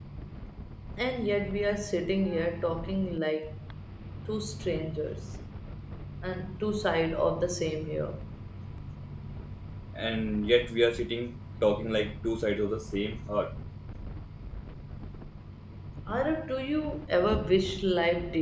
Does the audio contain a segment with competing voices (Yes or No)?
No